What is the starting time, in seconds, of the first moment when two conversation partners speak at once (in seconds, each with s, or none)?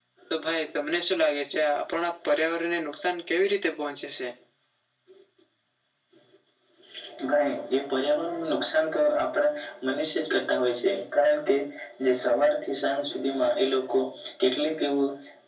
none